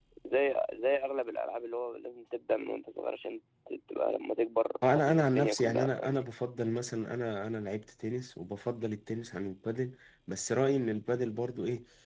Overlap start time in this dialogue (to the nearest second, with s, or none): 5 s